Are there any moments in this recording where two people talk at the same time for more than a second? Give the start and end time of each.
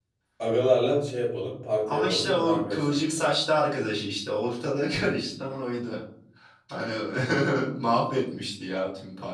1.9-3.3

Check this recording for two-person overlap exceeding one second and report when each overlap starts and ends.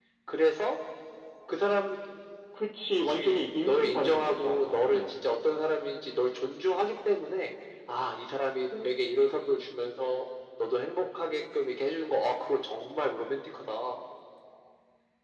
3.0-5.0

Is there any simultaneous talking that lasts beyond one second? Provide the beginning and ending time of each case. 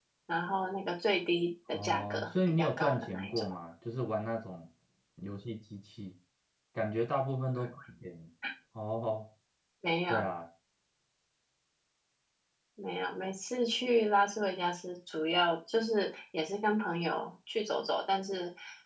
1.7-3.3

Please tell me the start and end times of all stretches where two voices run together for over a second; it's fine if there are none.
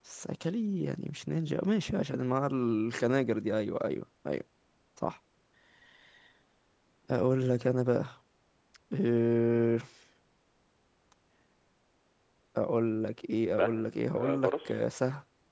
13.5-14.8

